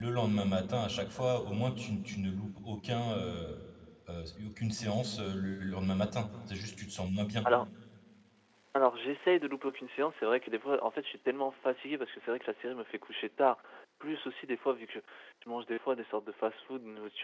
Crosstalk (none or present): none